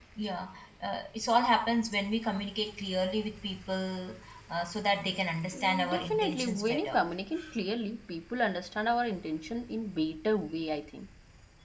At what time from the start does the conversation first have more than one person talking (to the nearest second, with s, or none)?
6 s